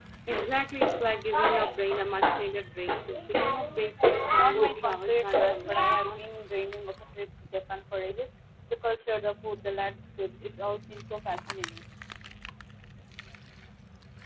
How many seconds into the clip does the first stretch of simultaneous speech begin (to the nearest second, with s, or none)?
4 s